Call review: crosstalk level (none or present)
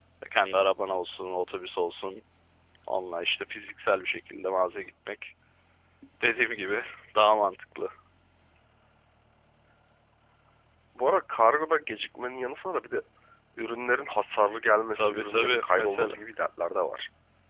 present